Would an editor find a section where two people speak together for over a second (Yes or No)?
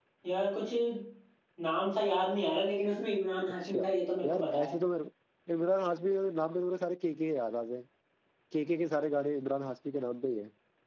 No